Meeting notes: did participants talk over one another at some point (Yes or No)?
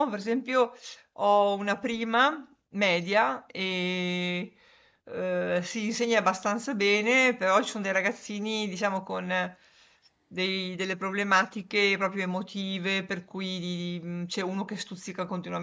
No